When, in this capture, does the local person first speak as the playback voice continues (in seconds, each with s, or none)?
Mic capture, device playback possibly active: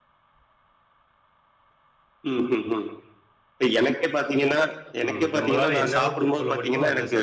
5.1 s